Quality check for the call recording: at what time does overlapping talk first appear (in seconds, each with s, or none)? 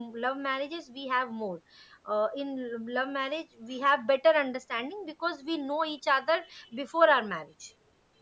none